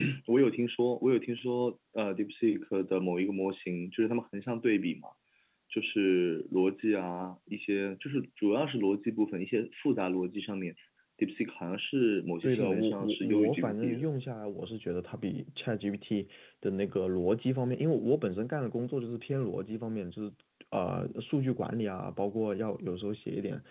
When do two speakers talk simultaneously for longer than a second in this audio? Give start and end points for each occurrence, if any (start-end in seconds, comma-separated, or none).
12.4-14.0